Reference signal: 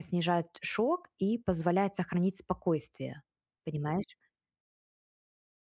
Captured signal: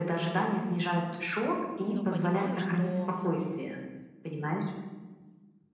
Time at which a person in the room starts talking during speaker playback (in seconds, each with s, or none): 1.9 s